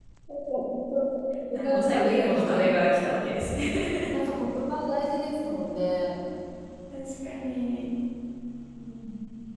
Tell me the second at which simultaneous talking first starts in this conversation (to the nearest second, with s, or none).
2 s